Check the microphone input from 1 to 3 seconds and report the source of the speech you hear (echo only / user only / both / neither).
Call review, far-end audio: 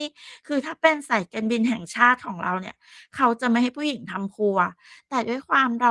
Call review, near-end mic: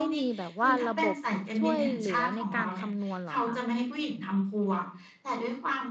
both